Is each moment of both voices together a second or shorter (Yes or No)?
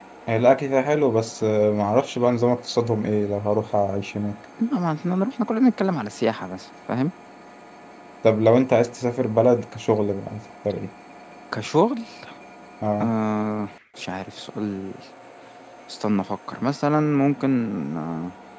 Yes